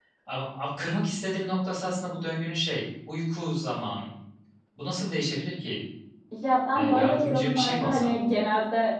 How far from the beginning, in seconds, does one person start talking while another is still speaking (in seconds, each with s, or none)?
6.7 s